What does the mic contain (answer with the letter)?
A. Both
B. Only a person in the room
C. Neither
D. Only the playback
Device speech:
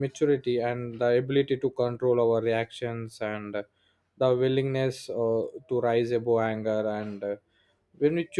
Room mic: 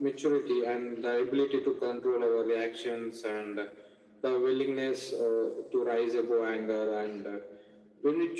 D